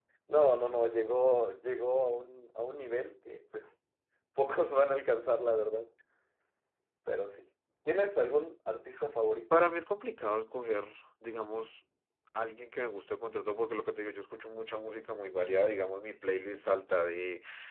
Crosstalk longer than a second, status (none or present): none